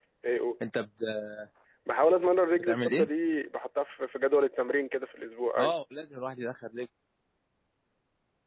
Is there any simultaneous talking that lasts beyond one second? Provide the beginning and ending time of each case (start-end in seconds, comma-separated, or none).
none